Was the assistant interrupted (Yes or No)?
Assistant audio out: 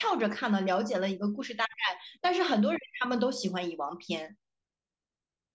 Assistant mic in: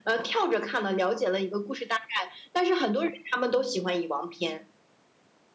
No